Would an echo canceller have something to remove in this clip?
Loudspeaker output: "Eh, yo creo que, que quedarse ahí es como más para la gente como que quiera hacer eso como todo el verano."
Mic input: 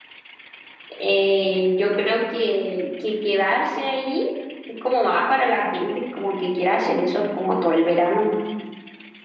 Yes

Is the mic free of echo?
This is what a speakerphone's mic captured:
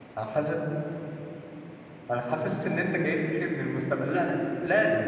Yes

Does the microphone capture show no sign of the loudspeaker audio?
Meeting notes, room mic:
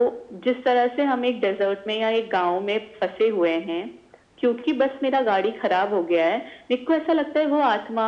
No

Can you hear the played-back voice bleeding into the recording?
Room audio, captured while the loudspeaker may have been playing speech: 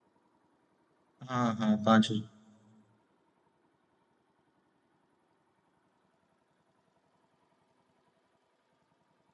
No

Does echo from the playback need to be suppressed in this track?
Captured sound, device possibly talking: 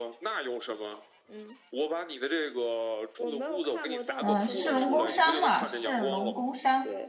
Yes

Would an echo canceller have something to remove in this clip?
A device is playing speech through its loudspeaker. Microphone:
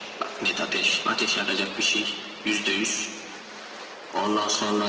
Yes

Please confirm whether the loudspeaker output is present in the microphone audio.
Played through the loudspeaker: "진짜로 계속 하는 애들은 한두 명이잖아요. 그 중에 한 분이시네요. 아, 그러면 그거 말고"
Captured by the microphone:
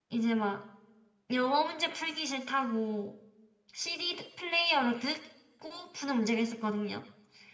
No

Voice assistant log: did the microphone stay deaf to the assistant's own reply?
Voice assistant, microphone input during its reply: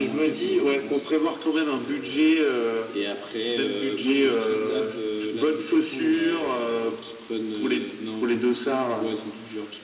No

